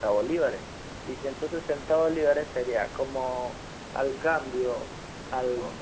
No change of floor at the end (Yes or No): Yes